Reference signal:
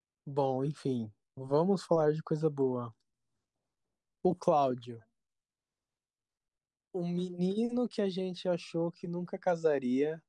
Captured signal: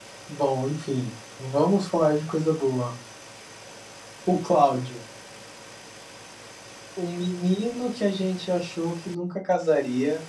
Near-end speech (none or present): none